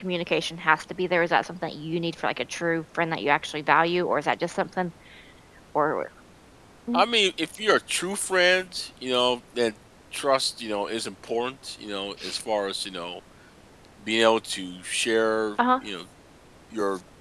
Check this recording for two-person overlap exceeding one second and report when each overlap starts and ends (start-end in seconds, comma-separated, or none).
none